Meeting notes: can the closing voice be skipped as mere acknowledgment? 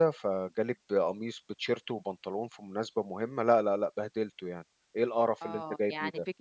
No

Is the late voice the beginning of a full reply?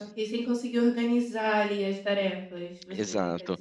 Yes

